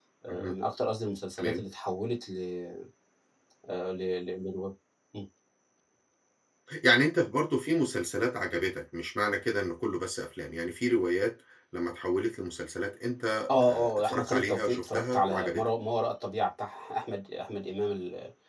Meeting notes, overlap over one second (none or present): present